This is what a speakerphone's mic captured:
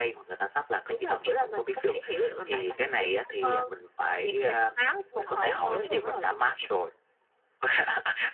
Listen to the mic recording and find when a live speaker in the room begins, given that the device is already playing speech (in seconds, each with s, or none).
5.0 s